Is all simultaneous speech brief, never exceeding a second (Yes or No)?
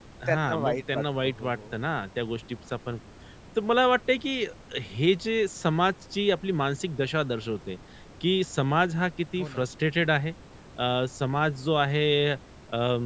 No